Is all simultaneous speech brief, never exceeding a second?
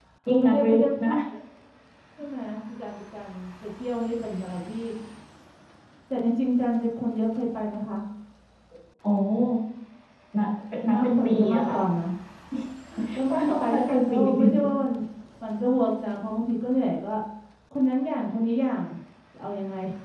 No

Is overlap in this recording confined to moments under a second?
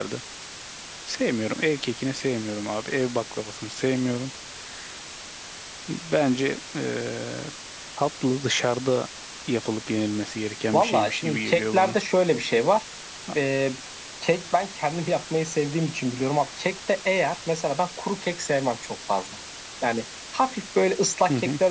No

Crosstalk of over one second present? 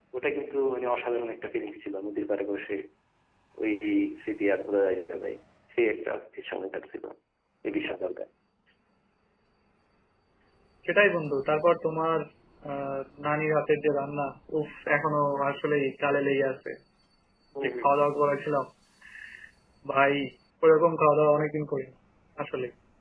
No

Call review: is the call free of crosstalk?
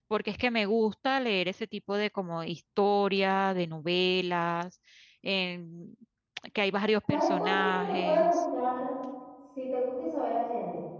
No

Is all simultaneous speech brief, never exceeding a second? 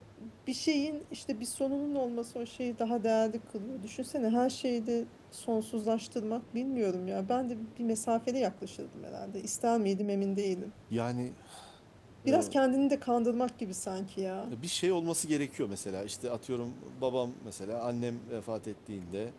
Yes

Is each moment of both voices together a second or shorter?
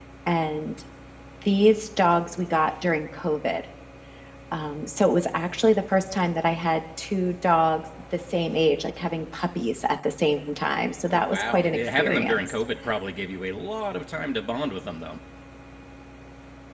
No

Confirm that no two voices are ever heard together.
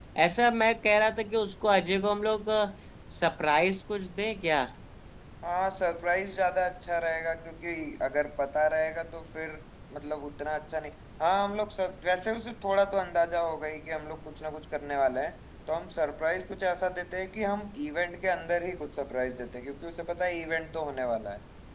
Yes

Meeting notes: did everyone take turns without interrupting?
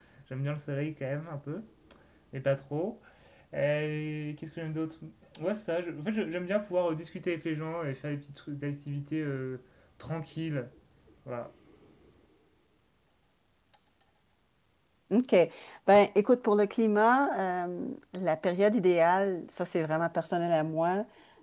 Yes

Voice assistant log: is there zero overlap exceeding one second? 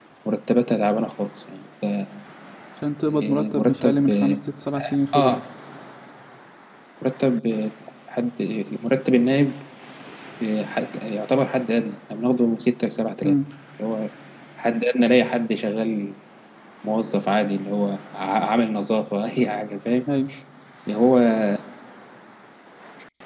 No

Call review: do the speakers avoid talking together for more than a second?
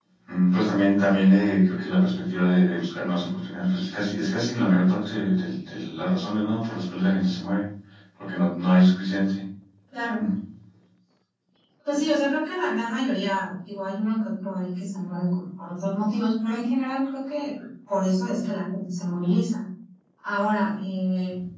Yes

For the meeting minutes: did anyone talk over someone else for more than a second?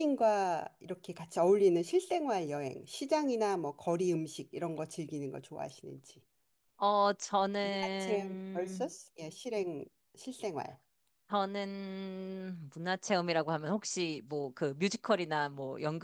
Yes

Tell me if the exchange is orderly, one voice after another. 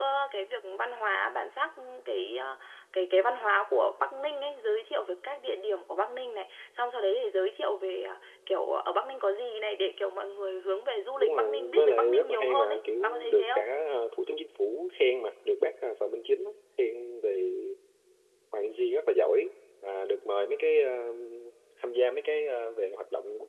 No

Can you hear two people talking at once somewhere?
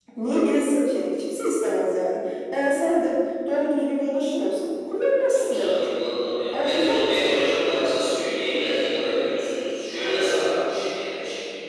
Yes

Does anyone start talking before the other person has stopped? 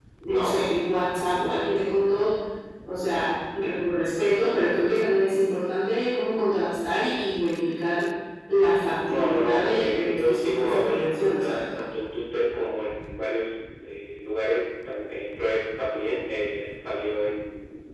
Yes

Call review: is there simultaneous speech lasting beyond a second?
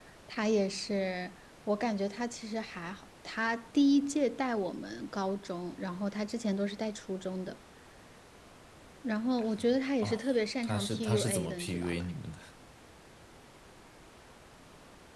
Yes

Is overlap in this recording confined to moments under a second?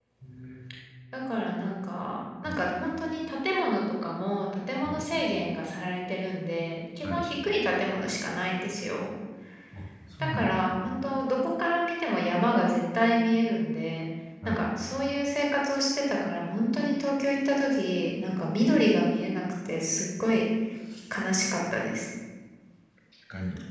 Yes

